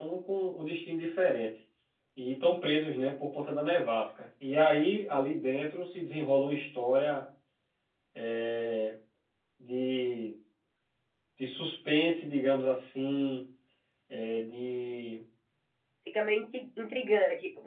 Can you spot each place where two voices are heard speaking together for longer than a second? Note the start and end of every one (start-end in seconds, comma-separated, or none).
none